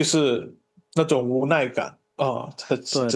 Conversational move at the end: taking over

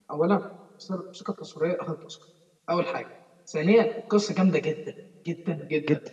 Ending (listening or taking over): listening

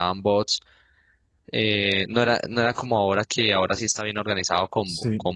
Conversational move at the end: listening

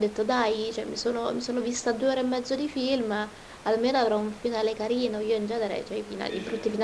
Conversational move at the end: listening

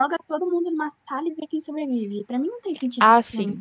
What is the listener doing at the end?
taking over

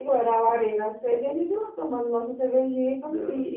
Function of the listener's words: listening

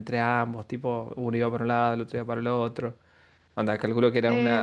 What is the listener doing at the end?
taking over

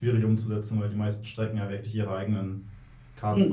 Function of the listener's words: taking over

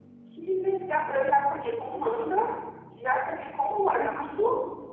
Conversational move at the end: taking over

